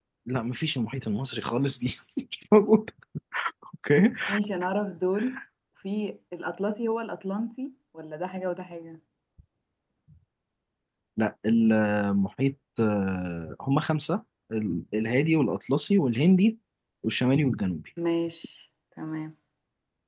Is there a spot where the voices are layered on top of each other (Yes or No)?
No